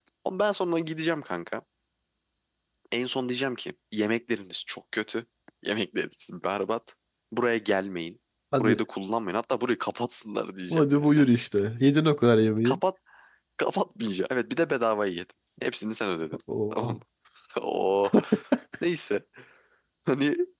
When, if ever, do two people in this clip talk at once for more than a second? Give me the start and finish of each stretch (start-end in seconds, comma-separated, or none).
none